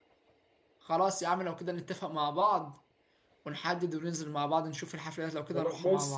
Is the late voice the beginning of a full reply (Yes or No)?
Yes